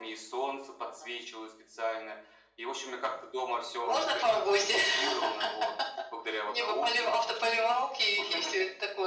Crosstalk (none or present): present